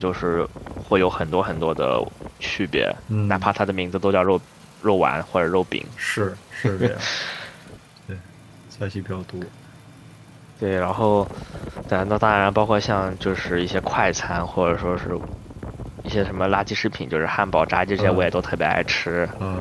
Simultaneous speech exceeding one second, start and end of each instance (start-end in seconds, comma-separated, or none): none